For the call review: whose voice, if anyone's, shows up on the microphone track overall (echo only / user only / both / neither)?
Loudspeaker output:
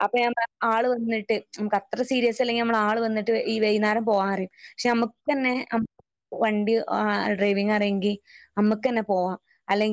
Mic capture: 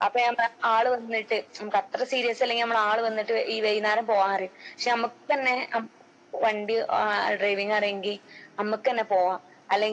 echo only